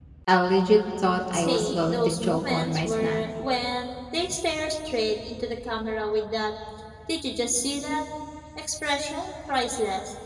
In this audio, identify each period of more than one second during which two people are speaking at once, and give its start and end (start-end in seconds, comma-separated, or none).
1.3-3.2